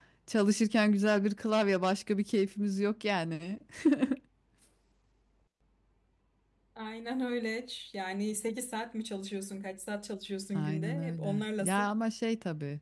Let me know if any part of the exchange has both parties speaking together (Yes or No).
Yes